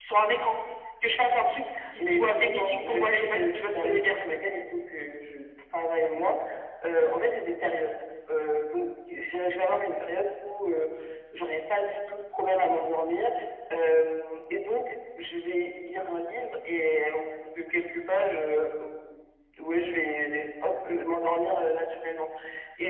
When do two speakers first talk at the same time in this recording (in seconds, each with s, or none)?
1.8 s